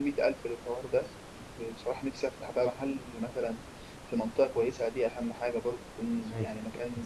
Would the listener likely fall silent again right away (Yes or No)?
No